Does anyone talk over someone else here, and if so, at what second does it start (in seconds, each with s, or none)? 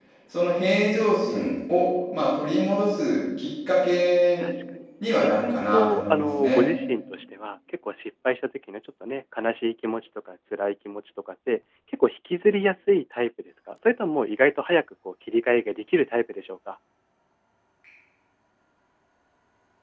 5.2 s